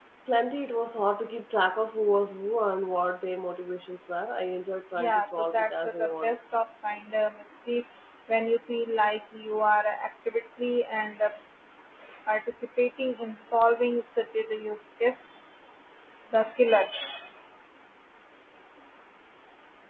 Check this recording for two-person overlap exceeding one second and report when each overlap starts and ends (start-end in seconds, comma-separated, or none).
5.0-6.3